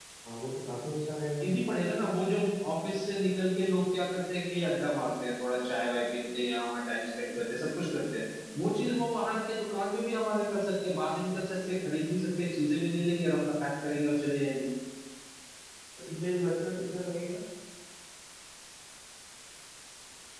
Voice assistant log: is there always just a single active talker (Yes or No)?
Yes